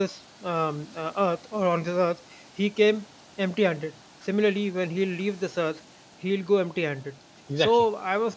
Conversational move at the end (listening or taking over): listening